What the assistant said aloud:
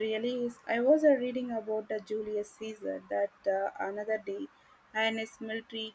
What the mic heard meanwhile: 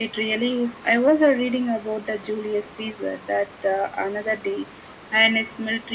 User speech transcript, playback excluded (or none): none